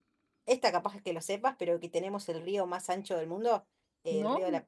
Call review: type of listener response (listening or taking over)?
listening